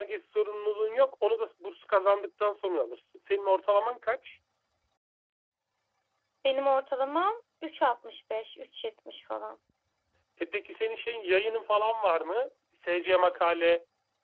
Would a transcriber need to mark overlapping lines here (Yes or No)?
No